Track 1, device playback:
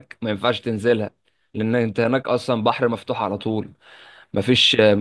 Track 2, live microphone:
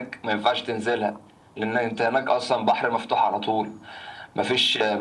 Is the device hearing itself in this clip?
Yes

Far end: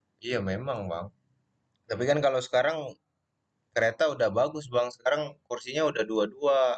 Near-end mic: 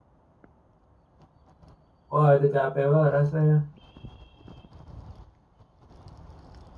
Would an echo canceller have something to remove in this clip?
No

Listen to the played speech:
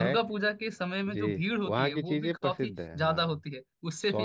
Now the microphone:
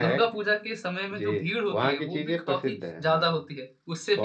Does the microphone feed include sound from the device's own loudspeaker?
Yes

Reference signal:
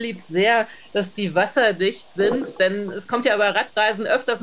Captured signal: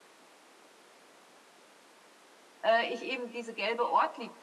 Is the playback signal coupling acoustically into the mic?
No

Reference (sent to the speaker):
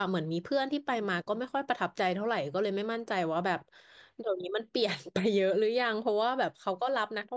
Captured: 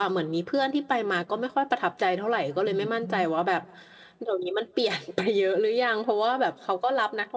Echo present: Yes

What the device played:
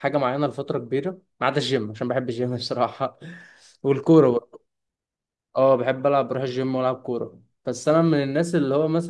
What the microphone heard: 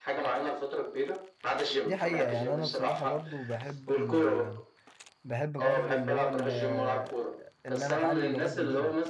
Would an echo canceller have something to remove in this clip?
Yes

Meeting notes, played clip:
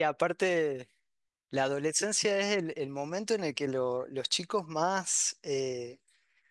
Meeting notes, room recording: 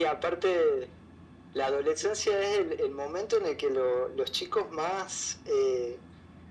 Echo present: Yes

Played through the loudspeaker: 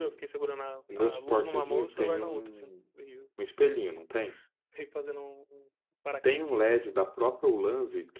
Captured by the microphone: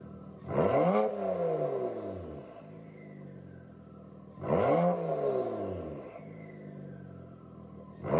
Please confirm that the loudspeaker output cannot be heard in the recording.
Yes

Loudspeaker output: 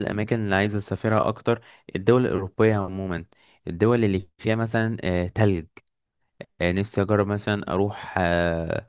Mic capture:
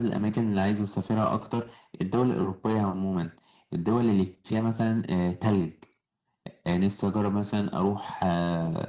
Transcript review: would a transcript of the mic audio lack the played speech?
No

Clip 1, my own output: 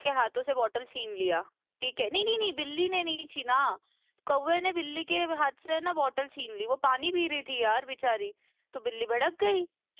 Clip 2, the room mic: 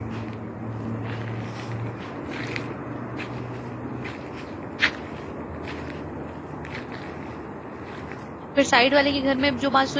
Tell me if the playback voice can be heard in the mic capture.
No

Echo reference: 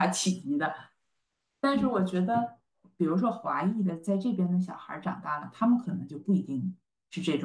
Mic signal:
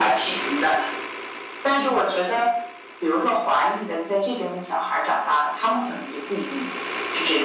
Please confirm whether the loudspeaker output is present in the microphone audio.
Yes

